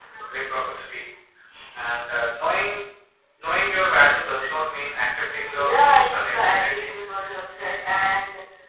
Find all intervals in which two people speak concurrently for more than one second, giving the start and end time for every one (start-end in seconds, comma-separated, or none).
5.3-6.9